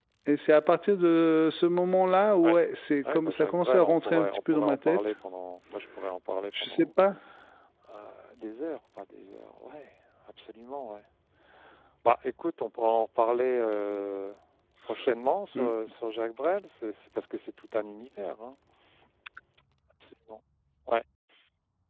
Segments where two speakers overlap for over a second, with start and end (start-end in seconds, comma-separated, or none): 3.1-5.0